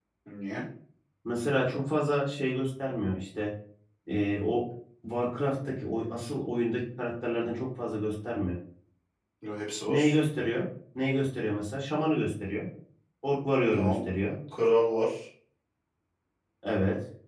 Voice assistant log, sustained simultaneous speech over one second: none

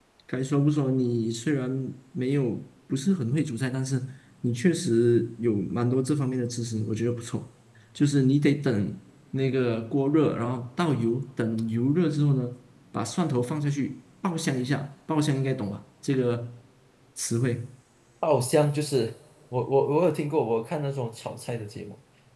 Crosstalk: none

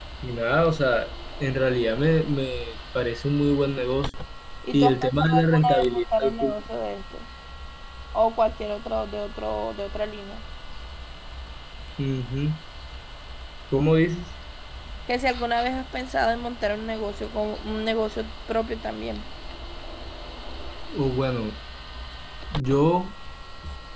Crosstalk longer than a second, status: present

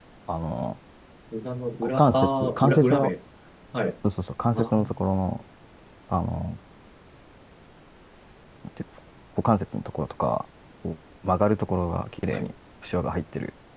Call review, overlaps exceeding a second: present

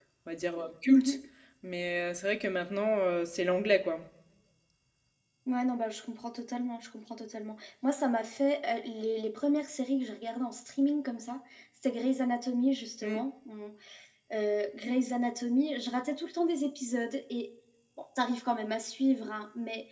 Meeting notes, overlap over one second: none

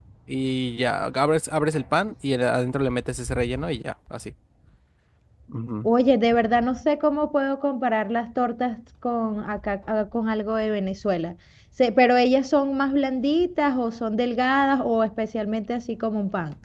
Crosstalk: none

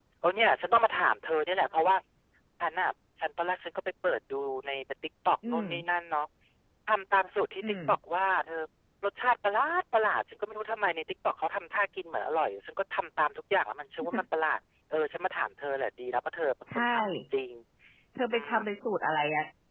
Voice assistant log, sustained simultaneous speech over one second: none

